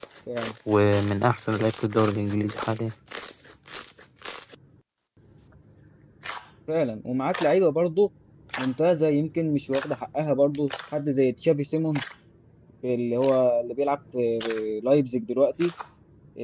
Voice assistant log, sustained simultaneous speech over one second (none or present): none